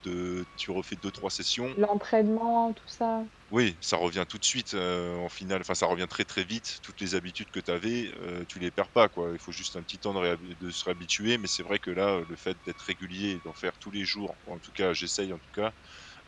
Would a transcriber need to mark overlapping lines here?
No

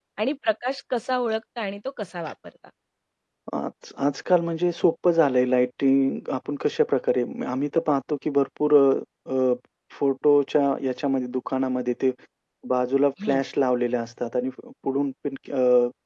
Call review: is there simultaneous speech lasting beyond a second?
No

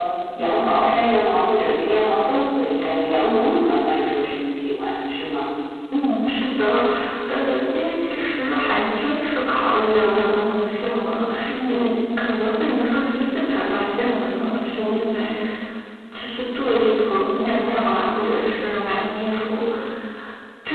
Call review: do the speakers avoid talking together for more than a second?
Yes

